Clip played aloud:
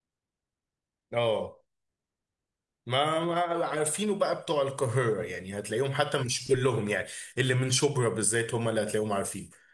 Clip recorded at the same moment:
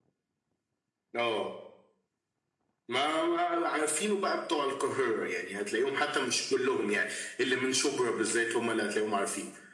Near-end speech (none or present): none